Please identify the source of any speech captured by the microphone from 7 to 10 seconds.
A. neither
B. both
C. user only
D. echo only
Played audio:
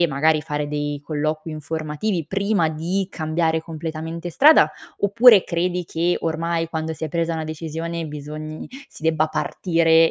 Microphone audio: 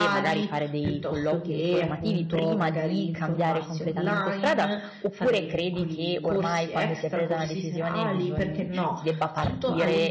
B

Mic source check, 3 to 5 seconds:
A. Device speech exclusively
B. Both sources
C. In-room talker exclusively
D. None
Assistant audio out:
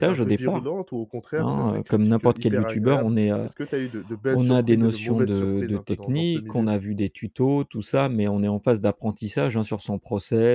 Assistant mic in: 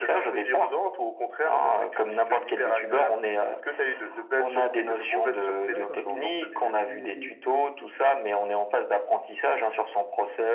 A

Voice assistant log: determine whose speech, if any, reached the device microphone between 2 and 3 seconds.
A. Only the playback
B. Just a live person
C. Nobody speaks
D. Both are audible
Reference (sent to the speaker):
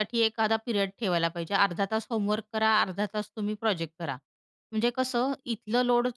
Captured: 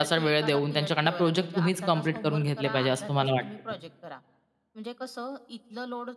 D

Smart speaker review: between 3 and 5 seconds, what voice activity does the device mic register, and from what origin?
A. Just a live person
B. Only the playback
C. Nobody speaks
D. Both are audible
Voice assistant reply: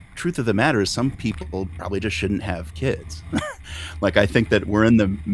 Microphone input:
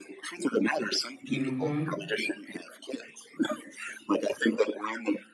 B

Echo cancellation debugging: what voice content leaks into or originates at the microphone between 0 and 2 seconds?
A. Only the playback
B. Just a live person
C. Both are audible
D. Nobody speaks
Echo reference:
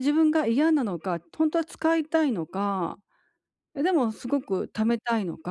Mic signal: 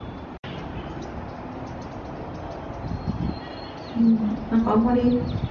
D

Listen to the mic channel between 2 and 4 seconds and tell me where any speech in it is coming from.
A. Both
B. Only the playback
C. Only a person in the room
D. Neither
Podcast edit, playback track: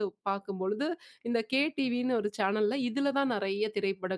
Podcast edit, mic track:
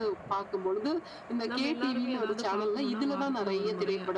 A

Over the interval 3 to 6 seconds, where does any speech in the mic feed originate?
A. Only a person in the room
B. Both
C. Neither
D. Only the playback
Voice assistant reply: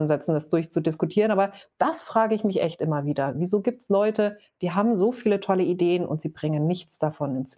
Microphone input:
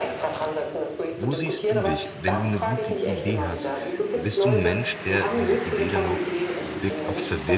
B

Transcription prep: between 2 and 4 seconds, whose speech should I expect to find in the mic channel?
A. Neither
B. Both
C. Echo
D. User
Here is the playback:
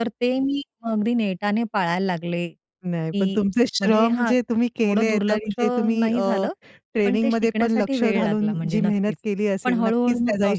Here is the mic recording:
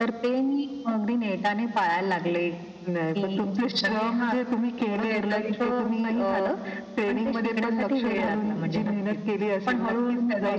C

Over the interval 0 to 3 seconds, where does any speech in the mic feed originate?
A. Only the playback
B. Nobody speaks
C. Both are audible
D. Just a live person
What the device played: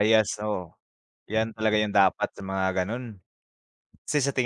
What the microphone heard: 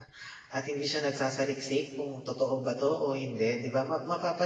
D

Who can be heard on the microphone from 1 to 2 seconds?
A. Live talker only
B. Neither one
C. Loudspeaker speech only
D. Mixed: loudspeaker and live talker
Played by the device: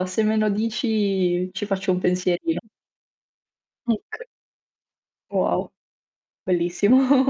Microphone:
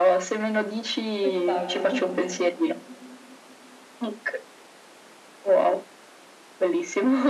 D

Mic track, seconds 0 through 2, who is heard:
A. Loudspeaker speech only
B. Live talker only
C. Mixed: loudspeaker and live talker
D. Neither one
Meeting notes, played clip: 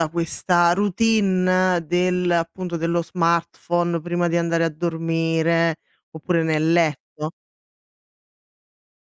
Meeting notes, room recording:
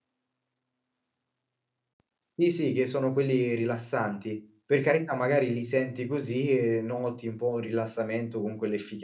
D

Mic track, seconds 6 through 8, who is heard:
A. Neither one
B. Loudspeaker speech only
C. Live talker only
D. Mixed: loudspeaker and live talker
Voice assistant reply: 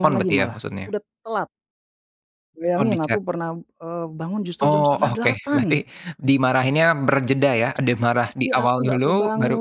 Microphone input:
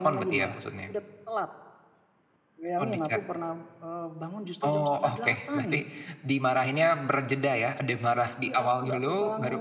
B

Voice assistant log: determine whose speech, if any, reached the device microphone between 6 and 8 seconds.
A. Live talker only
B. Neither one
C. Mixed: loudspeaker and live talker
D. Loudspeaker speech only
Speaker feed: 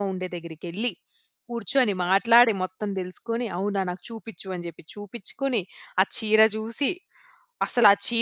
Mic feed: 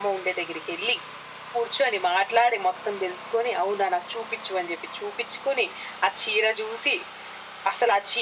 D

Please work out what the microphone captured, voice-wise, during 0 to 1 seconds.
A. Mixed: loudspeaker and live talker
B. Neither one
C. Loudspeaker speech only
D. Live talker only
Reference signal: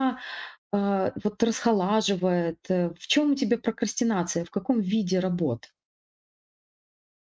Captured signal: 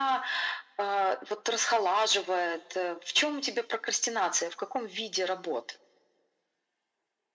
C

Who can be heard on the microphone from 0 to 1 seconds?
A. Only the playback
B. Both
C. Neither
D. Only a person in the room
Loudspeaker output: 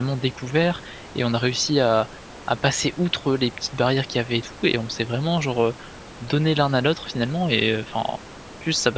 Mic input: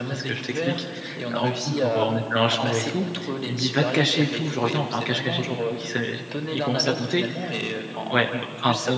B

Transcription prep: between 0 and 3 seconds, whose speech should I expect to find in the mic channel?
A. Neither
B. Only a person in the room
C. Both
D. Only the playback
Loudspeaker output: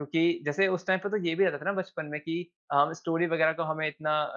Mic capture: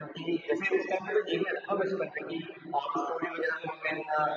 D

